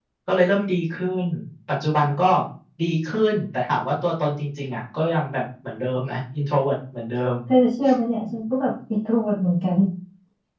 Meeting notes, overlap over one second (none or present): none